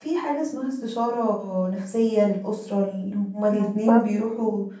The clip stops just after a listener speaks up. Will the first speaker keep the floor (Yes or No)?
Yes